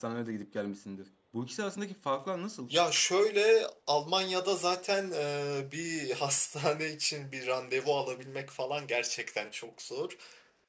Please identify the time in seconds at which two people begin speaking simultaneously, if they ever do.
none

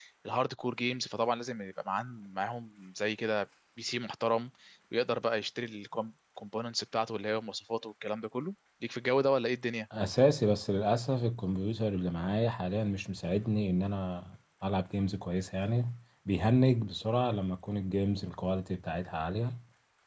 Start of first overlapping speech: none

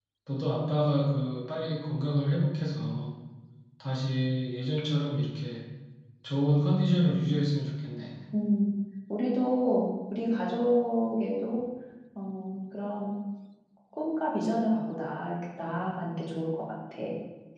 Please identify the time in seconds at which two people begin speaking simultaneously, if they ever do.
none

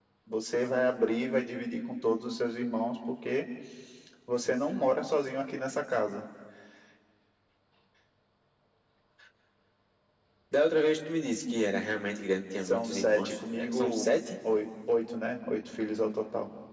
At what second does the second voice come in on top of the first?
12.6 s

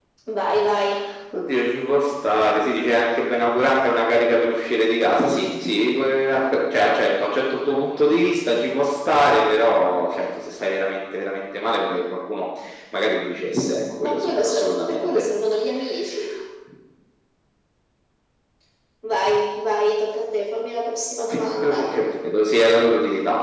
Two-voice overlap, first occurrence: 14.0 s

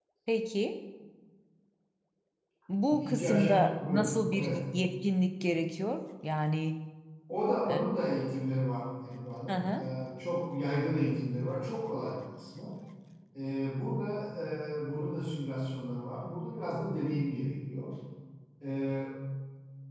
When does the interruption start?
2.9 s

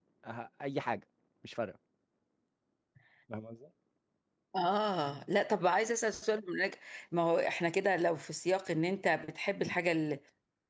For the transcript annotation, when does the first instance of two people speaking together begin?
none

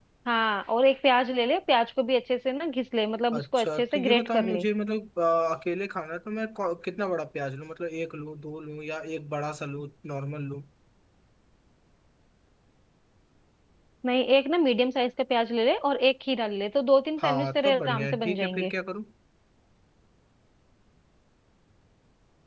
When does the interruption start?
3.3 s

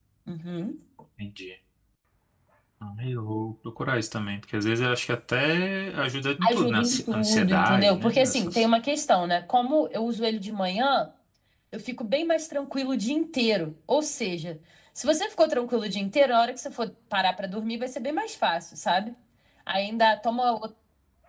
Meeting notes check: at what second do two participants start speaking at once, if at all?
6.4 s

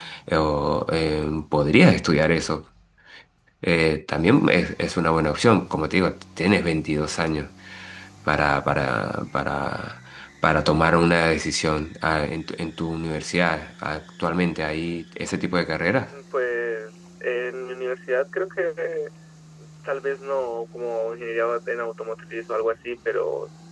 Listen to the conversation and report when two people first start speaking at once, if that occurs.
none

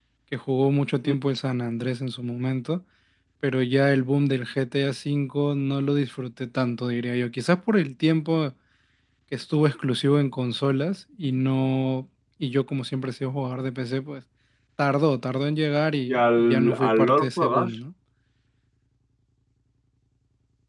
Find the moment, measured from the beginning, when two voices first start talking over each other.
16.1 s

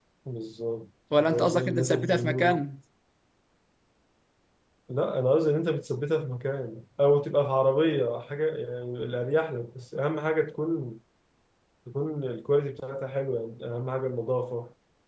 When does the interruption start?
1.2 s

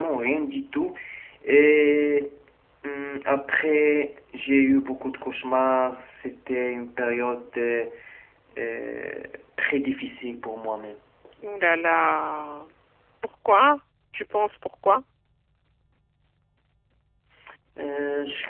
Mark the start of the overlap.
none

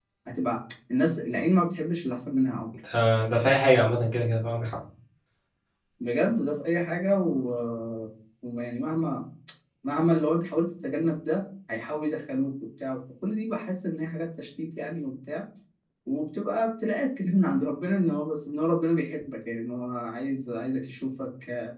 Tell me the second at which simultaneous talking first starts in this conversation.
none

